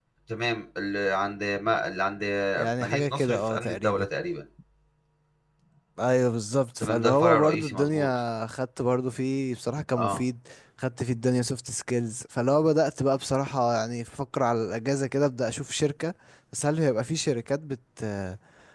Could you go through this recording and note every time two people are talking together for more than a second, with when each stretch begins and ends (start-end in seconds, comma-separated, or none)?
2.8-4.0, 6.8-8.1